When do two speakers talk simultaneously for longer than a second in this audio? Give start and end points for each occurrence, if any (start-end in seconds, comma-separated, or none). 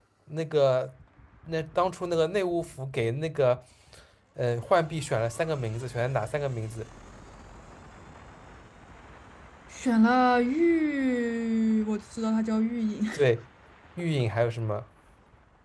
none